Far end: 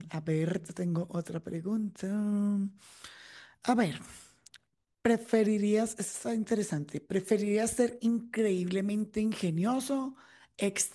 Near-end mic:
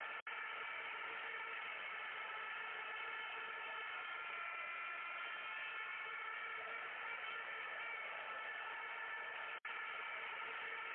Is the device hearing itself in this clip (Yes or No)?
No